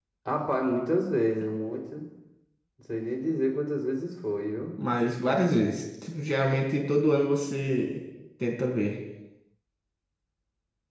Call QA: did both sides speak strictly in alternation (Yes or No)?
Yes